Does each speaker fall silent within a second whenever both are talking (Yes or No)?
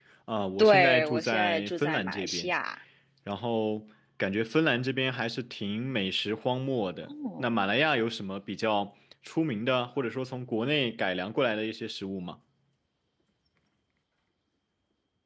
No